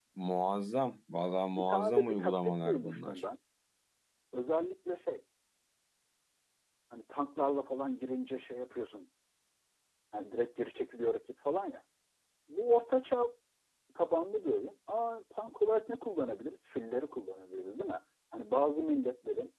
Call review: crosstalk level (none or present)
present